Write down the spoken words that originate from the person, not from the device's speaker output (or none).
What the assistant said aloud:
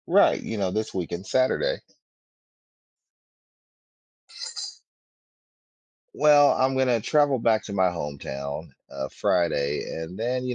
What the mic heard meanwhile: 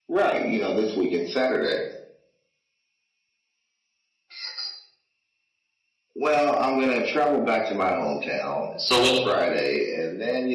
So what's